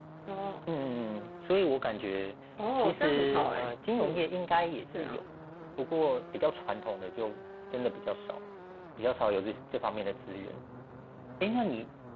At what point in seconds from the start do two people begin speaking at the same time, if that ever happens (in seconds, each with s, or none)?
2.8 s